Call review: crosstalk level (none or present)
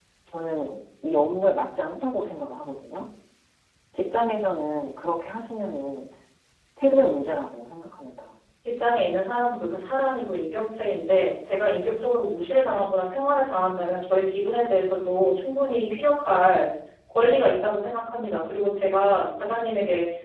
none